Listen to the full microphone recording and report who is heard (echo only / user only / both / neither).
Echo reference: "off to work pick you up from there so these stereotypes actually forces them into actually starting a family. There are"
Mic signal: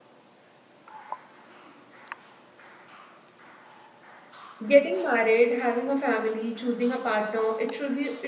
user only